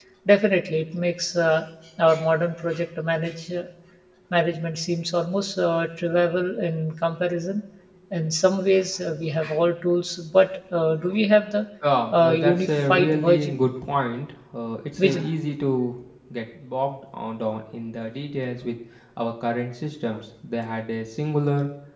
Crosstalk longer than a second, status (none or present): present